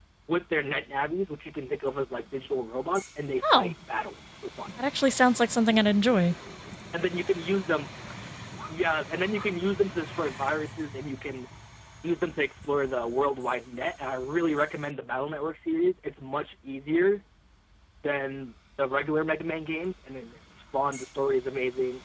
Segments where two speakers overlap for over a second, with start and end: none

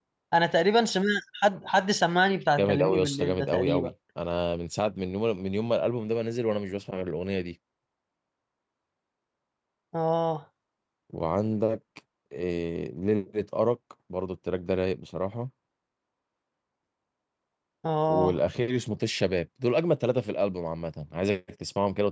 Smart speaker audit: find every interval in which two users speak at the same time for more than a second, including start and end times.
2.6-3.9

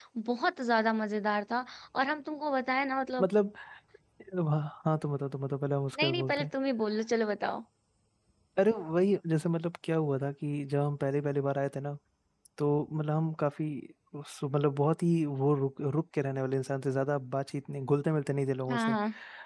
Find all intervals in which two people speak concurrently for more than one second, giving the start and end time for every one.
none

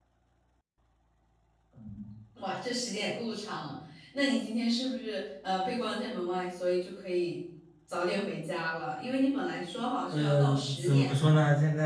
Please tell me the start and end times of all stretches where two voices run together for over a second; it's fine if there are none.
10.1-11.3

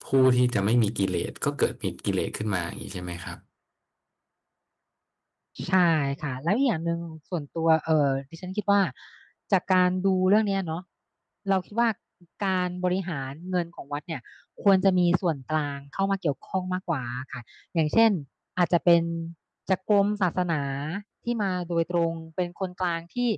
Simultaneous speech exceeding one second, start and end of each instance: none

